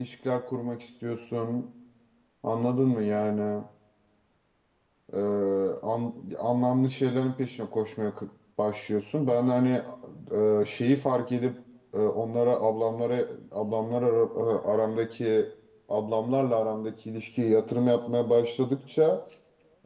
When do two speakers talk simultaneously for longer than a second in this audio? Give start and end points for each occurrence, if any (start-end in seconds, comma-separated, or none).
none